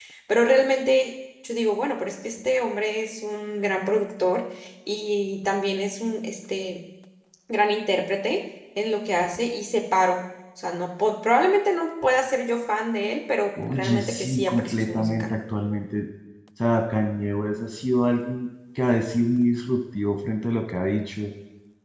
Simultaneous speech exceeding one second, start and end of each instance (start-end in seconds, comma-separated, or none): 13.7-15.3